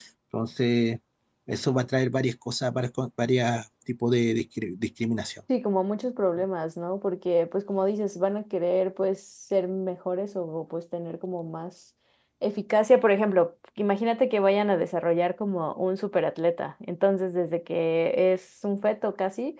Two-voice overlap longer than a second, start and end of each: none

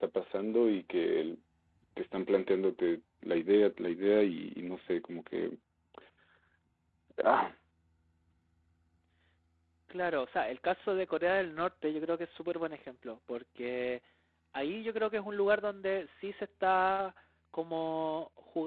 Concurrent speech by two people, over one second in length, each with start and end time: none

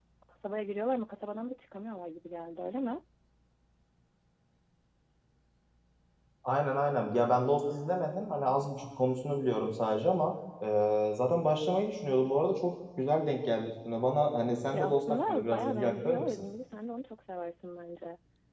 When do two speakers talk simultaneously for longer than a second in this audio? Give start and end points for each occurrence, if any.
14.7-16.4

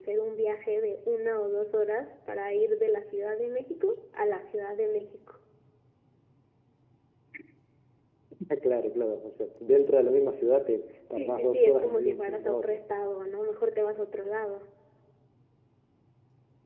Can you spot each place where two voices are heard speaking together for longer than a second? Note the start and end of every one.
11.2-12.8

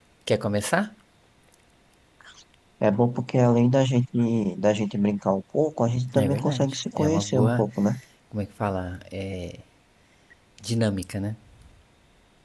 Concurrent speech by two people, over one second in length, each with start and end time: 6.2-7.6

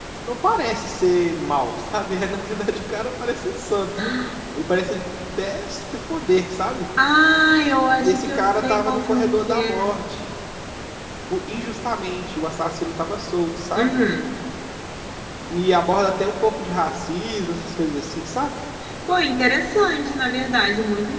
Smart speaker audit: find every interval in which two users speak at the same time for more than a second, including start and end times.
8.0-9.9

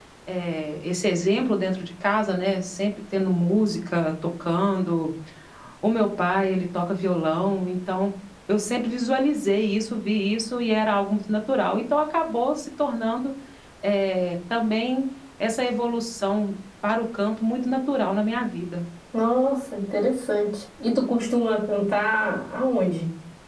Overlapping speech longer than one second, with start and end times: none

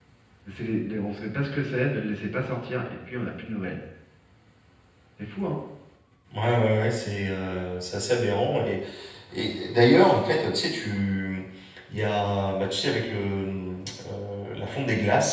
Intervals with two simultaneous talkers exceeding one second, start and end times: none

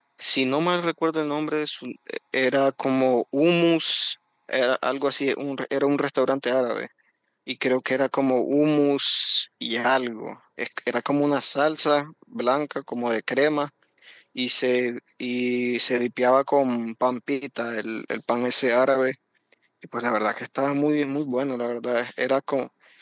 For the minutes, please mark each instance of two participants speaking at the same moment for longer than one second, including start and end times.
none

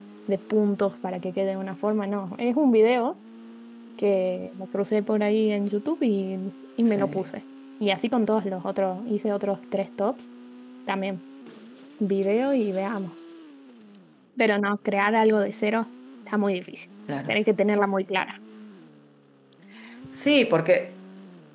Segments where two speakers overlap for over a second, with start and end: none

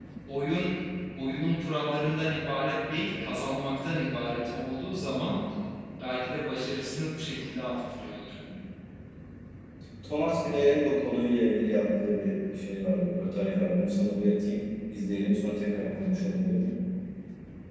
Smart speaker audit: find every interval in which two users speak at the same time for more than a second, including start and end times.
none

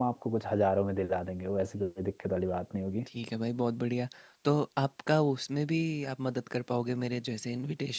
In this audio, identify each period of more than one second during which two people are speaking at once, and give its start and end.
none

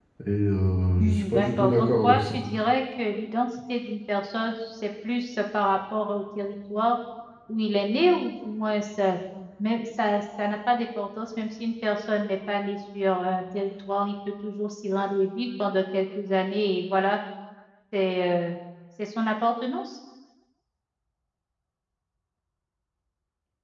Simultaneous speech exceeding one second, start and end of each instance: 1.0-2.4

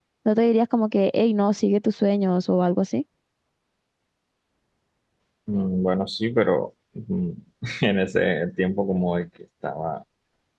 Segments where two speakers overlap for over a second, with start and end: none

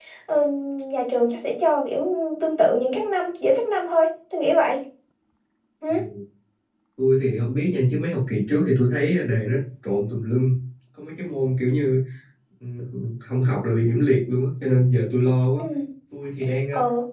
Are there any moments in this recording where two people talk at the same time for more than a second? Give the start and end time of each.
none

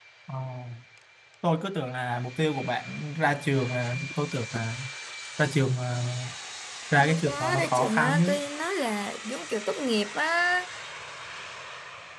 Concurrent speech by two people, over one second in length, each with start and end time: 7.1-8.4

